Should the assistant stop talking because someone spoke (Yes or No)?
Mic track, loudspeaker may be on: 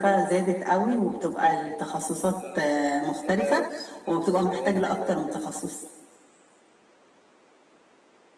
Yes